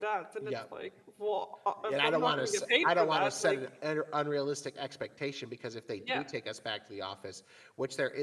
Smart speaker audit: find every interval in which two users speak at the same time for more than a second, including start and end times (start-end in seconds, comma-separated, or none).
1.9-3.6